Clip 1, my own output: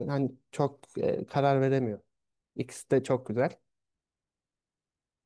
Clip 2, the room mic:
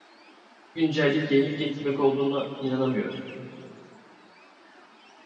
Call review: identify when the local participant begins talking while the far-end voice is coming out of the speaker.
0.7 s

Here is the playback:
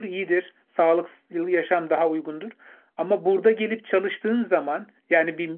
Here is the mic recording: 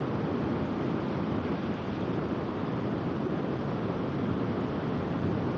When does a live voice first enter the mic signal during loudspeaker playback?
none

